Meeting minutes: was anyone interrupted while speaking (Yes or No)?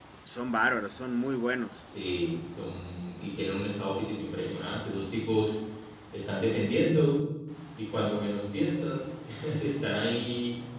No